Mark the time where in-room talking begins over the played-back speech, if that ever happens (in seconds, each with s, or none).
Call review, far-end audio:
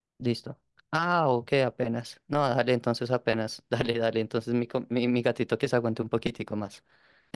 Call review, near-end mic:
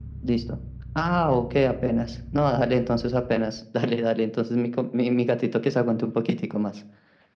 none